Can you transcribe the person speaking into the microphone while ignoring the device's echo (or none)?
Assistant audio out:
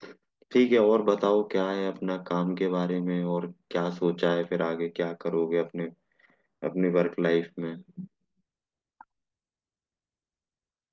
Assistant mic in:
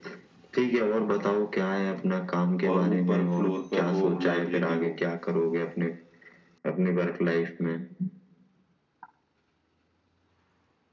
और ऊपर फ्लोर पर हो लाइब्रेरी हो